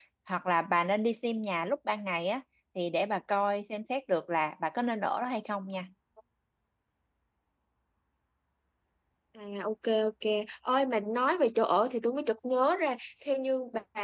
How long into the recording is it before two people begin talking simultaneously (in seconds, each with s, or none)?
none